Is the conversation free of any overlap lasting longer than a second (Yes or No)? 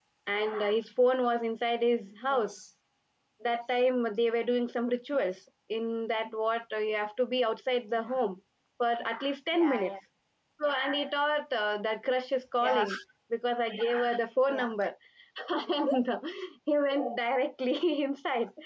Yes